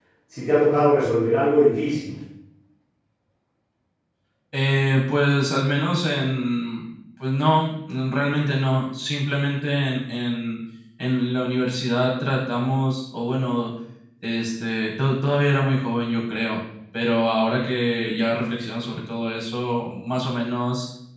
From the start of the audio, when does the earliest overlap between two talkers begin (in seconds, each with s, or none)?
none